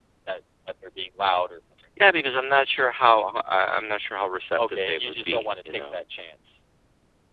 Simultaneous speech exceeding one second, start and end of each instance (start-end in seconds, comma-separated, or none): 4.6-6.0